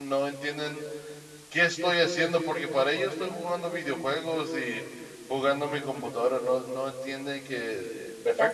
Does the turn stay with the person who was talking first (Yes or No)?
Yes